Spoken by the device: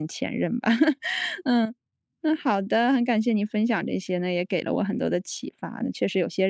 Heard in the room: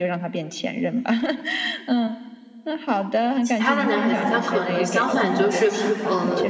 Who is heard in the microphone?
both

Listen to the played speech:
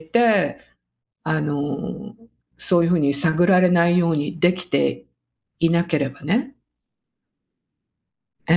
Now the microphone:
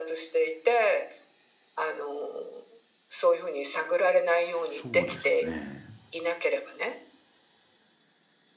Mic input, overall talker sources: both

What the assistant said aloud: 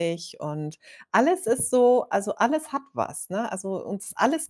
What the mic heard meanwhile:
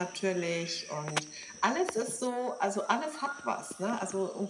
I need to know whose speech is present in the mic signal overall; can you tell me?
echo only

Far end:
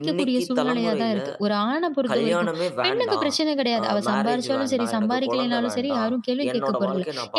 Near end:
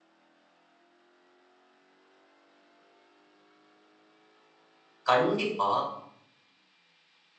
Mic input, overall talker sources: user only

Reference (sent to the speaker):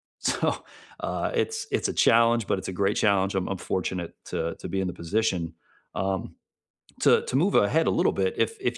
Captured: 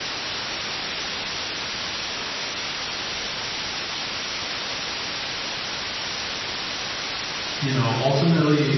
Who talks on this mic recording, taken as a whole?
user only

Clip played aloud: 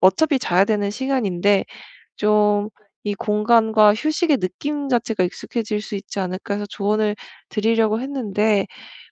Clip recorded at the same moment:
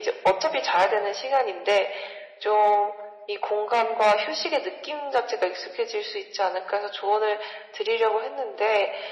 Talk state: echo only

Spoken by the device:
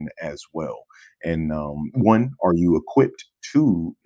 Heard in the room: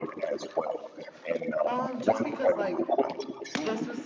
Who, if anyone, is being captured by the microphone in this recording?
both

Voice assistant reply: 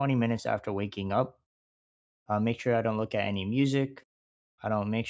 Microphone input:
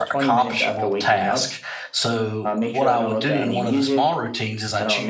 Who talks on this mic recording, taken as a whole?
both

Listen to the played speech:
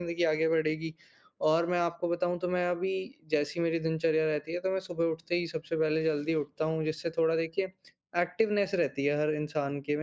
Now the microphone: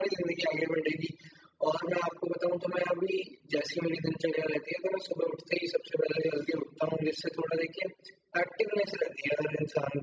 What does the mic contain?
echo only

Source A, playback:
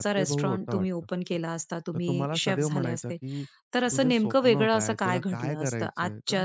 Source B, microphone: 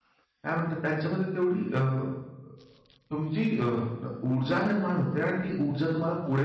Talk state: user only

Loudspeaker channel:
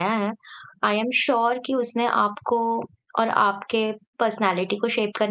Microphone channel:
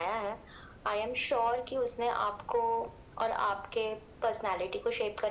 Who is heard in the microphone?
echo only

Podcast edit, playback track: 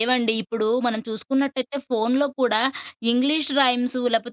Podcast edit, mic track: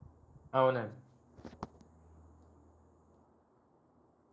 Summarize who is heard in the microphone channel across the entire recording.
user only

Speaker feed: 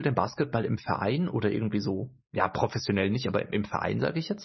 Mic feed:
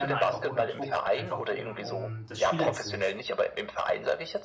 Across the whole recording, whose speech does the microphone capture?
both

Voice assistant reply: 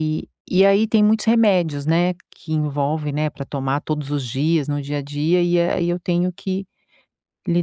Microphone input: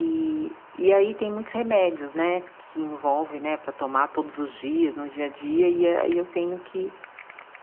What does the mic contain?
echo only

